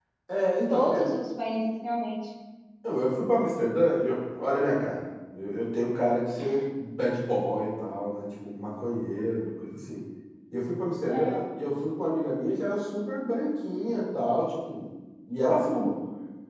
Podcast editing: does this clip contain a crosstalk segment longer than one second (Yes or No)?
No